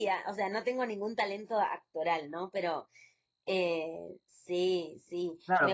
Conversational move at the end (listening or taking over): taking over